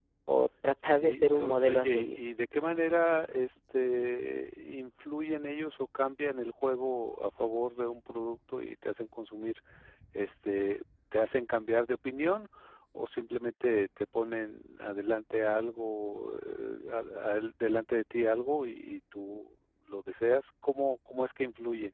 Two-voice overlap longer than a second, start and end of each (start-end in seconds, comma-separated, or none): 0.8-2.2